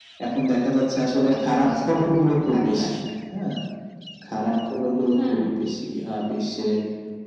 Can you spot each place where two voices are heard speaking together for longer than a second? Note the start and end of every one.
1.5-3.0

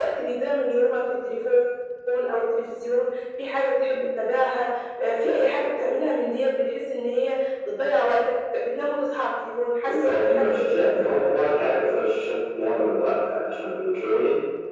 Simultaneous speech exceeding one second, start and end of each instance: 10.0-11.2

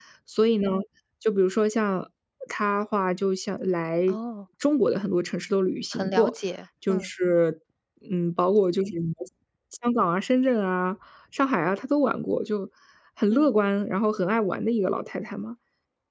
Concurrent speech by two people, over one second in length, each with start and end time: none

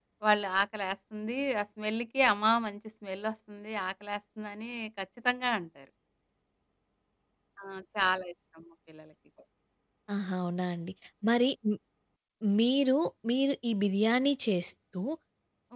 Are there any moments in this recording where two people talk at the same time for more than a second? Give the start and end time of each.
none

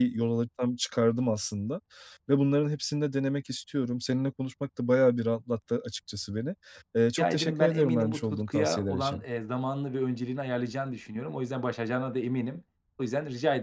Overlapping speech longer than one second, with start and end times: 7.2-9.2

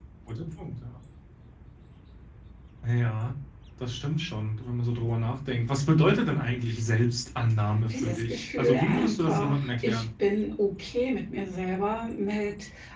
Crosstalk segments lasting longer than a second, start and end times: 7.9-10.0

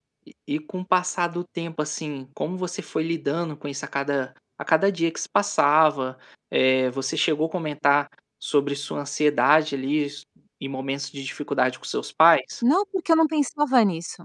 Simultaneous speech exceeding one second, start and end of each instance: none

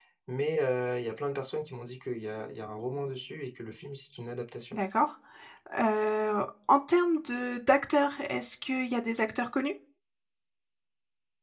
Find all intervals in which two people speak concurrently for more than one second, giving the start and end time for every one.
none

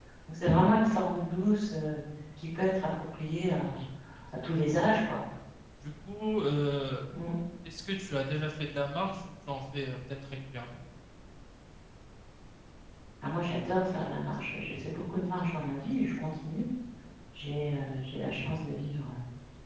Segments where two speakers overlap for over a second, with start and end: none

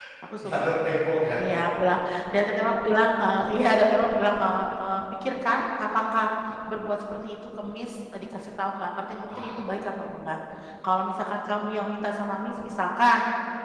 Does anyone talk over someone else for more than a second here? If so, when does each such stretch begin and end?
none

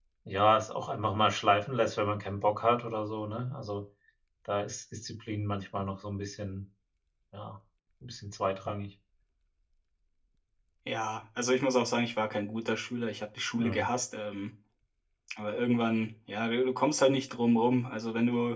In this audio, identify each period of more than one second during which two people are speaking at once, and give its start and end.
none

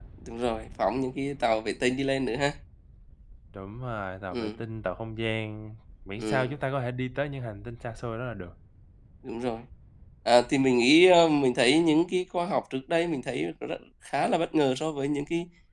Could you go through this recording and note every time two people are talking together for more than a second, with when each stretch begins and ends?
none

